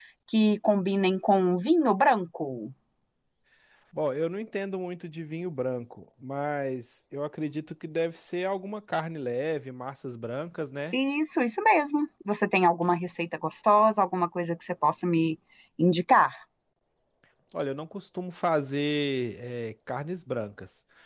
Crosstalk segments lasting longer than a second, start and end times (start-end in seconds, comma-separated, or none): none